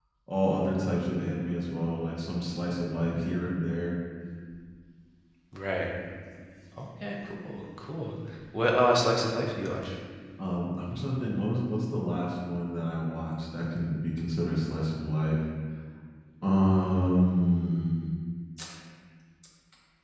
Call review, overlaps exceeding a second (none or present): none